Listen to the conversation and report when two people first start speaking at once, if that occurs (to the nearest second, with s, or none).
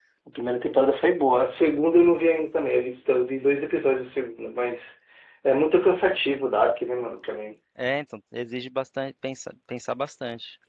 none